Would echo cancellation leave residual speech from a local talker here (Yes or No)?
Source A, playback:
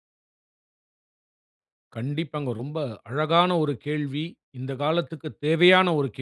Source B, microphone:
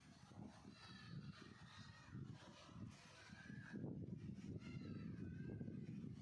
No